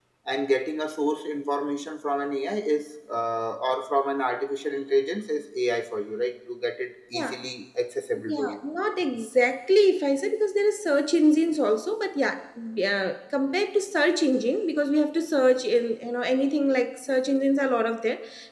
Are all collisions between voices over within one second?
Yes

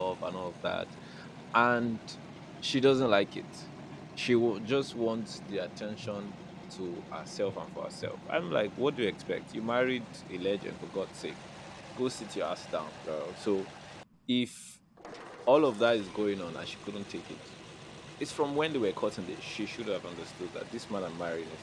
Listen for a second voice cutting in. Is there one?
No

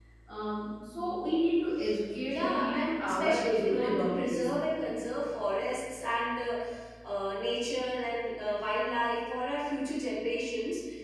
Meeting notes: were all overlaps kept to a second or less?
No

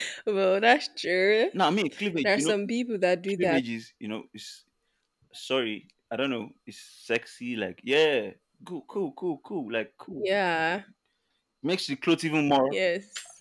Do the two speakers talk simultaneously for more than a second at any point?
No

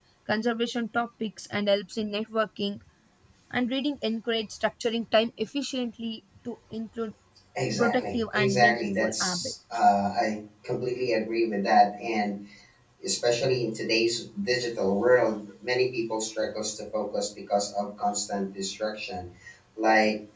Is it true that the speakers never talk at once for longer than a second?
No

